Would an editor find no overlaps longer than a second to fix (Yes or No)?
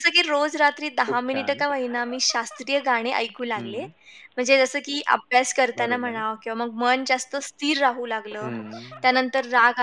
Yes